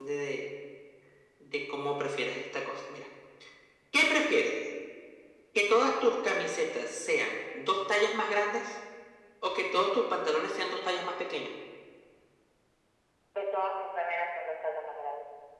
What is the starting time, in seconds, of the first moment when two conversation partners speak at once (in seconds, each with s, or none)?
none